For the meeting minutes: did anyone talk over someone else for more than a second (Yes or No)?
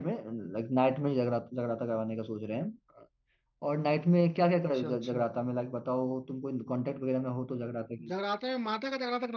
No